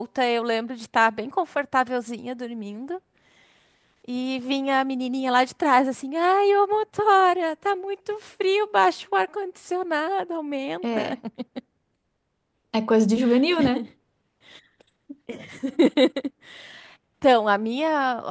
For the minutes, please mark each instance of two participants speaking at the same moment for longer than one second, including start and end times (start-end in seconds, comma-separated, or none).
none